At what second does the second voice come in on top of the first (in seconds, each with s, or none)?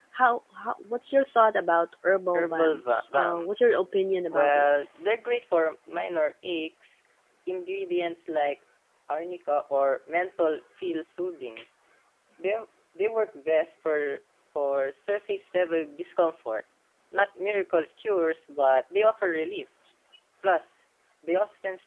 2.3 s